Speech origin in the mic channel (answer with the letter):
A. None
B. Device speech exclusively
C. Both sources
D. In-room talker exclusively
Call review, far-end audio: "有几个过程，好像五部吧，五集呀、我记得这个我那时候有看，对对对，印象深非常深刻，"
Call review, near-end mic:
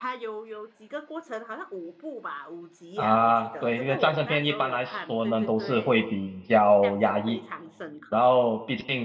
C